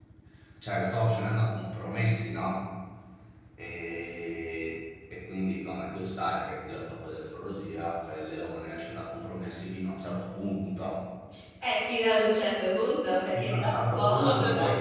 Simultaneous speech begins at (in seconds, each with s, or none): 13.3 s